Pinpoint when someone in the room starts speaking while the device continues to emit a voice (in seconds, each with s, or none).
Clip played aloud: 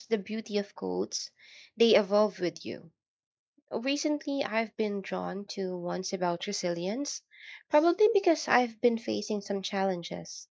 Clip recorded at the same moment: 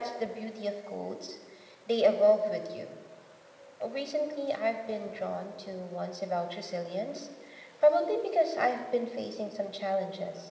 none